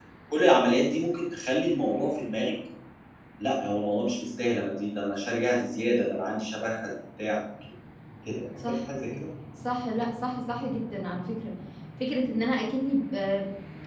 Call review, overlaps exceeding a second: none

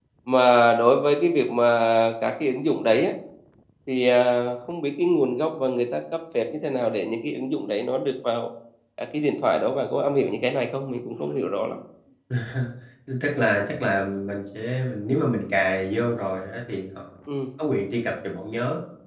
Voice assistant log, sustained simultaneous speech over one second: none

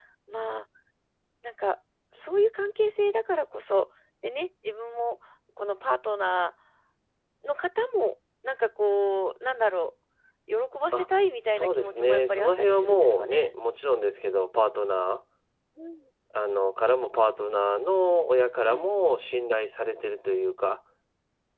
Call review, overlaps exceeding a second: present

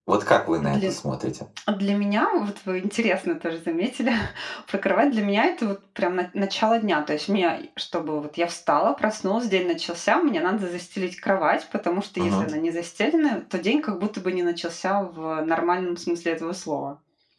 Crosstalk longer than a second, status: none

